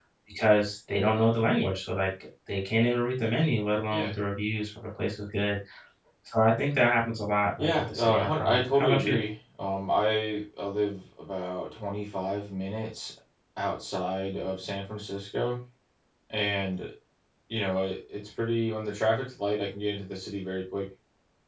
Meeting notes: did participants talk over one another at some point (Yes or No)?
Yes